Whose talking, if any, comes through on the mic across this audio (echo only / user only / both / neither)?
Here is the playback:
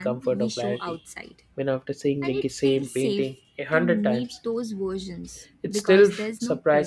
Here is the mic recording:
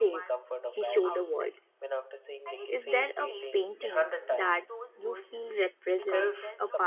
both